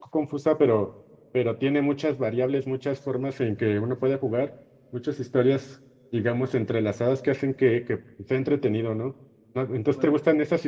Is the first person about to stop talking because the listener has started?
No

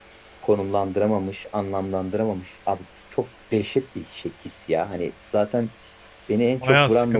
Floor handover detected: Yes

